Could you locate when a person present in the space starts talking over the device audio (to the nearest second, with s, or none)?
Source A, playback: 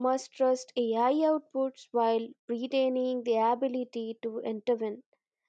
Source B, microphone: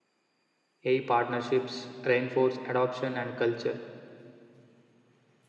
1 s